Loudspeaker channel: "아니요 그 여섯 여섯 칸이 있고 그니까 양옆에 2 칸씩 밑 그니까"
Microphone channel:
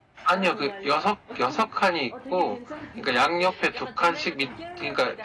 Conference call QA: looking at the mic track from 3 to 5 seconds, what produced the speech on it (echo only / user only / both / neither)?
both